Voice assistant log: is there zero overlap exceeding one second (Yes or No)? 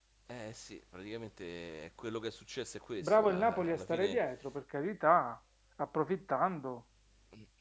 No